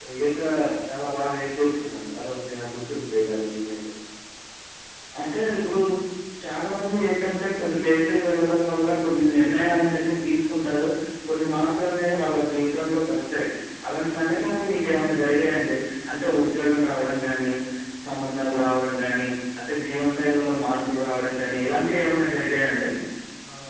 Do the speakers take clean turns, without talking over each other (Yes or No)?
Yes